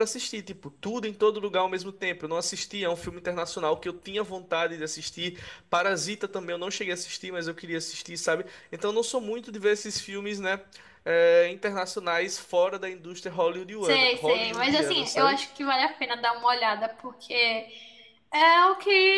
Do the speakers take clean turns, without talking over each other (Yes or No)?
No